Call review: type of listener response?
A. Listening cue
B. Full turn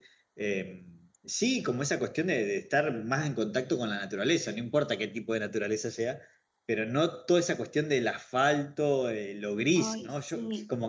A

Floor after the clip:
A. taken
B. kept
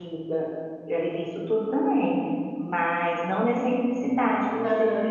A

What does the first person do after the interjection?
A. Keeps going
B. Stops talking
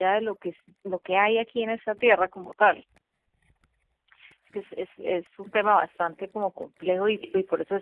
A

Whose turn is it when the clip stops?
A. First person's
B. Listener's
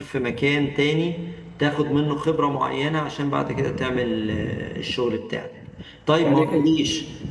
A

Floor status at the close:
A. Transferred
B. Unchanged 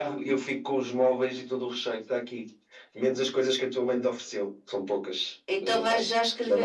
A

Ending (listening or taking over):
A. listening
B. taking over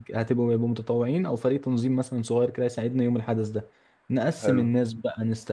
A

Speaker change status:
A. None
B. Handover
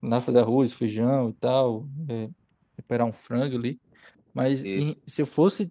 A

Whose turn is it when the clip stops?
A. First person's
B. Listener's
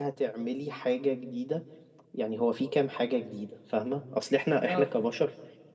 A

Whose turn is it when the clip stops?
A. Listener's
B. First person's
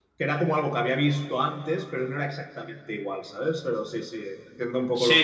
A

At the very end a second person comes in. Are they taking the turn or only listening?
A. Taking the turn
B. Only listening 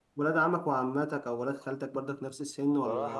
A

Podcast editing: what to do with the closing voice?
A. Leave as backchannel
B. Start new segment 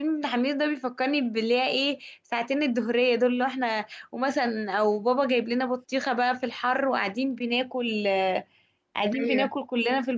A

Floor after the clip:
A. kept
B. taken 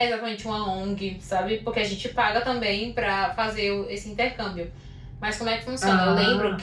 A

